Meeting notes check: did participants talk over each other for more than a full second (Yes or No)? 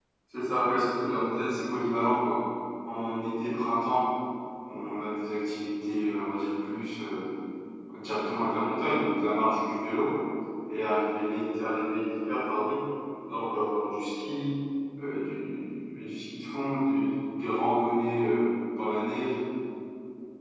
No